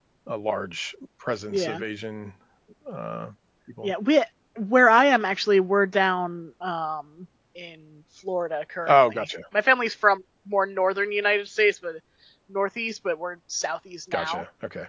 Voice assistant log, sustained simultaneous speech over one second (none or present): none